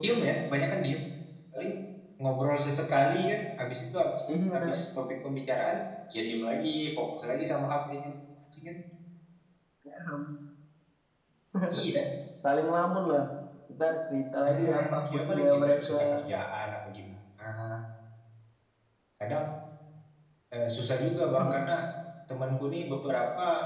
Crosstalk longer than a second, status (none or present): present